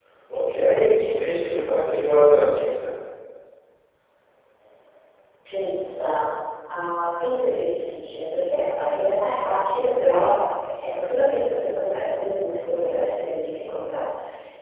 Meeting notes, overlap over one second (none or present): none